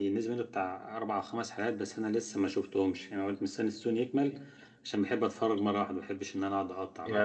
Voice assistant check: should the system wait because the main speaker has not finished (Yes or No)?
No